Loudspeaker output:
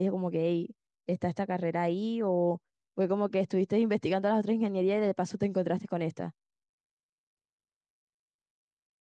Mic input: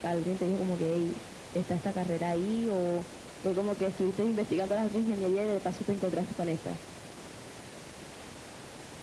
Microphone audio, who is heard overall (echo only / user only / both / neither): echo only